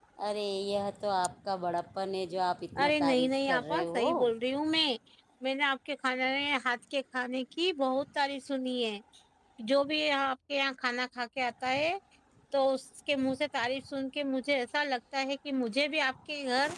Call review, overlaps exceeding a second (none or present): present